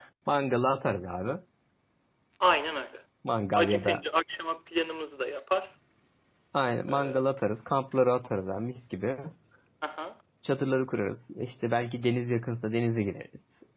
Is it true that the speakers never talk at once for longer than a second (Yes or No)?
Yes